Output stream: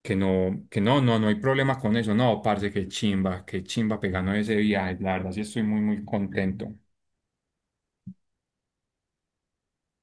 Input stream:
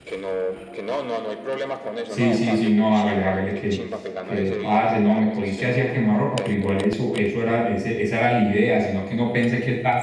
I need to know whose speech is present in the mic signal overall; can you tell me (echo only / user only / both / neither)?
both